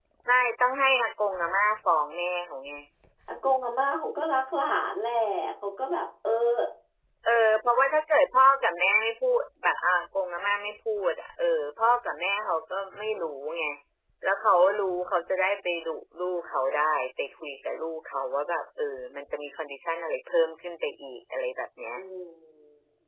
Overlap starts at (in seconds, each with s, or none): none